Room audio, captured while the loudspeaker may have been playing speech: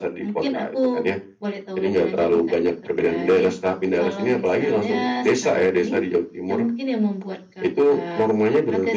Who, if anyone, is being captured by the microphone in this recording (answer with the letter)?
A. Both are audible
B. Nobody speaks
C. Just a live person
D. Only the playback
D